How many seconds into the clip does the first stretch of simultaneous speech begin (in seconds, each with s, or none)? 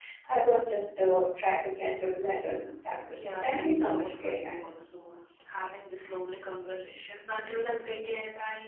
3.1 s